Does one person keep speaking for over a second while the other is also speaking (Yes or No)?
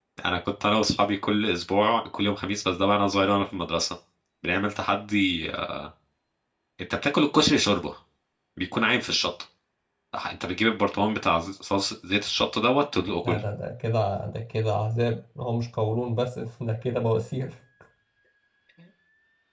No